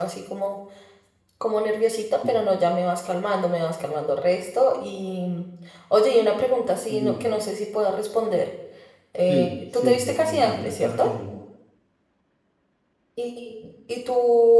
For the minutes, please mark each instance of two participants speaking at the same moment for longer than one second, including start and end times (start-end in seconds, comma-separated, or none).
9.3-11.1